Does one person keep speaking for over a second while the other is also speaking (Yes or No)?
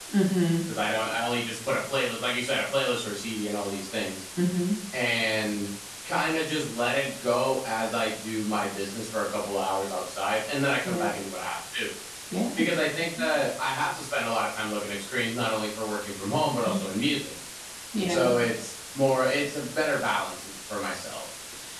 No